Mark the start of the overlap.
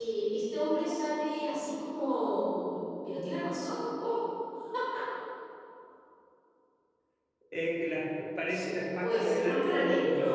8.5 s

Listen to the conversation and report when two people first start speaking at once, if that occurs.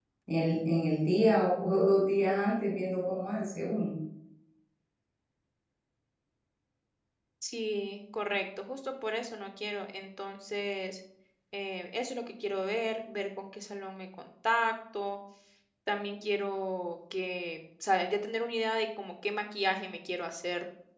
none

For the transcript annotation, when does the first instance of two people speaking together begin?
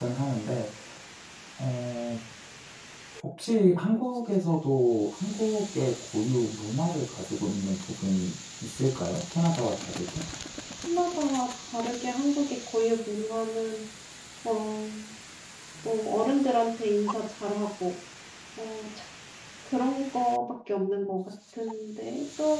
none

